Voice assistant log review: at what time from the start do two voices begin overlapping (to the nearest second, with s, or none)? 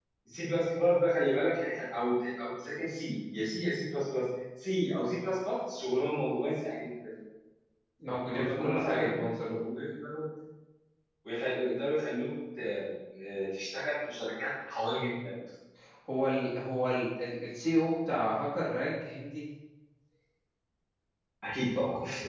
8 s